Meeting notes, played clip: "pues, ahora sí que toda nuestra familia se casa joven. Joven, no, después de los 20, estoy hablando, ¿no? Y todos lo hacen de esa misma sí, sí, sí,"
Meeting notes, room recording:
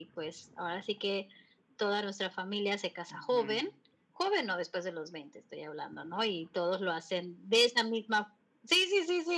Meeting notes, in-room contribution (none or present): present